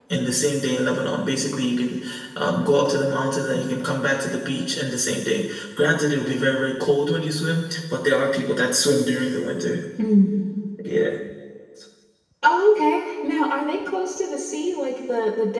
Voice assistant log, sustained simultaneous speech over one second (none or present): none